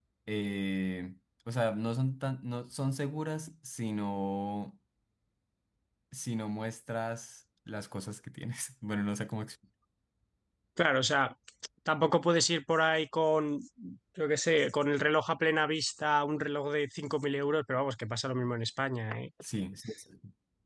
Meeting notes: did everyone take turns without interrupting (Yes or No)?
Yes